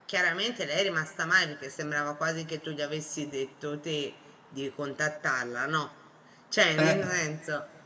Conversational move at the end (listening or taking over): listening